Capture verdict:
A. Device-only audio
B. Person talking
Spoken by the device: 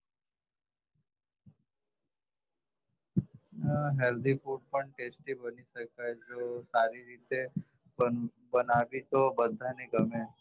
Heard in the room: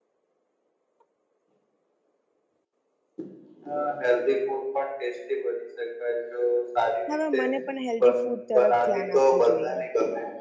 B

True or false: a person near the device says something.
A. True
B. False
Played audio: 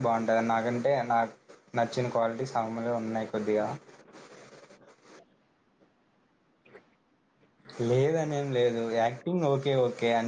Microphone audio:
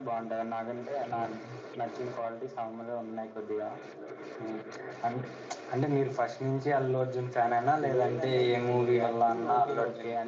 A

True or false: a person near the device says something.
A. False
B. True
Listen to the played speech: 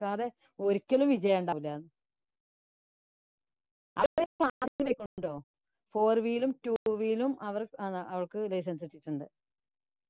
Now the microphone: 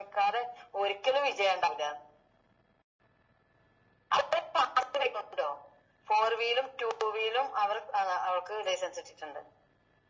A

